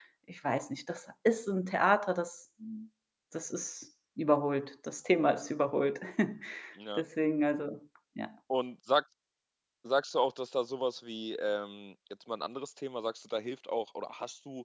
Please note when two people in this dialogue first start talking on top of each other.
none

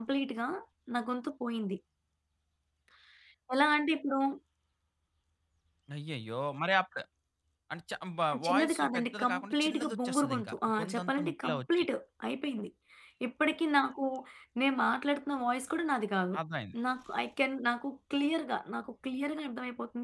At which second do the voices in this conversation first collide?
8 s

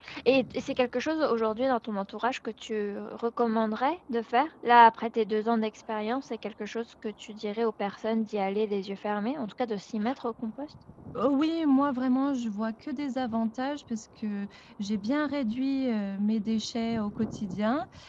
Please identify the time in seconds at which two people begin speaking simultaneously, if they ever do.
none

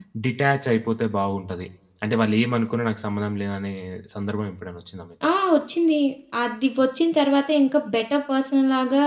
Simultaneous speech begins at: none

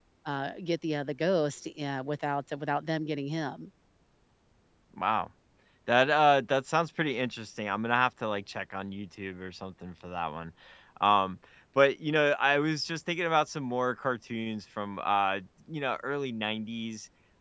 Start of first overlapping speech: none

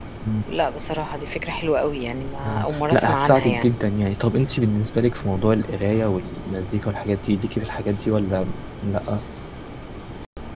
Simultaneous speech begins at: 2 s

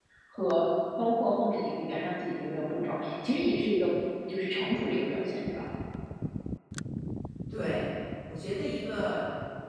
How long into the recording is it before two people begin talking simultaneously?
none

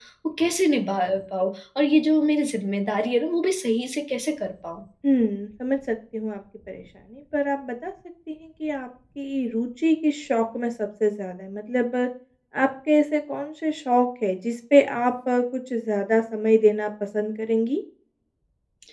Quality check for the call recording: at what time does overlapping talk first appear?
none

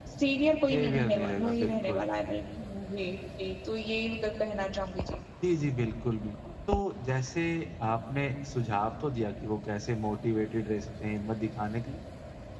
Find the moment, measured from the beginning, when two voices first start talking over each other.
1 s

